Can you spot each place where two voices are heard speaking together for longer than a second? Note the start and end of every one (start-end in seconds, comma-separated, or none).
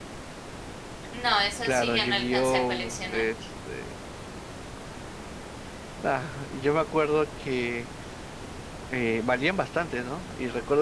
1.6-3.2